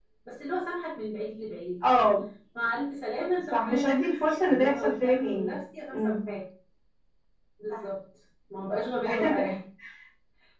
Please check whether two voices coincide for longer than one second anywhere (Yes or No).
Yes